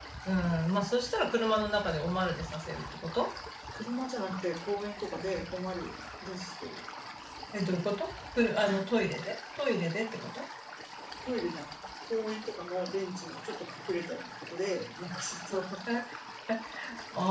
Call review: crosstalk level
none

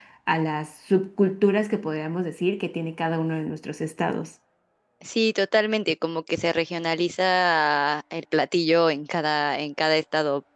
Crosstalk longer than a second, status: none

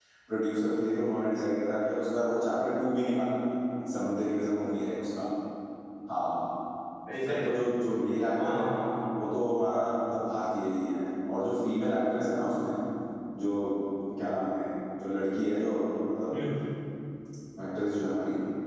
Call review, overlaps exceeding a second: none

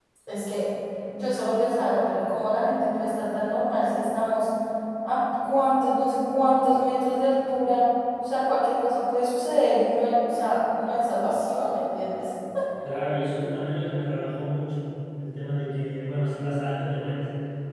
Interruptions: none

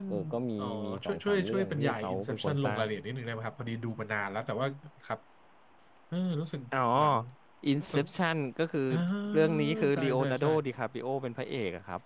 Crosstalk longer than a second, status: present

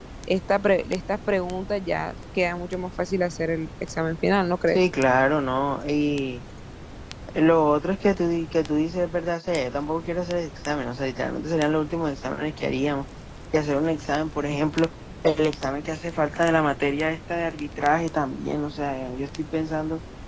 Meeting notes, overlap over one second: none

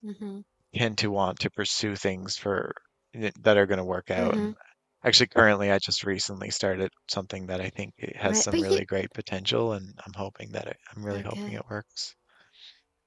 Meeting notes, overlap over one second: none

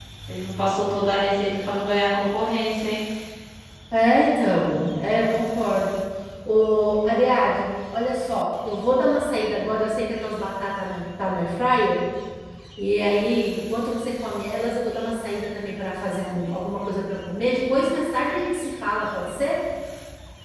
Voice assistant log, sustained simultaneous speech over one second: none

